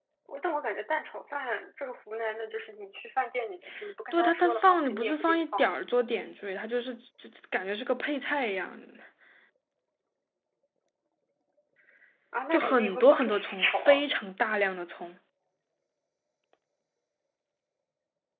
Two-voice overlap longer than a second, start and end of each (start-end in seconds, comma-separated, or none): 4.1-5.7, 12.5-14.0